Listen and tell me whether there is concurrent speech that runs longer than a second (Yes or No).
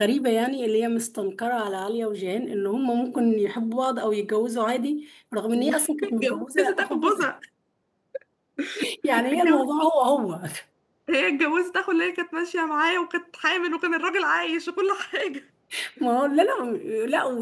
Yes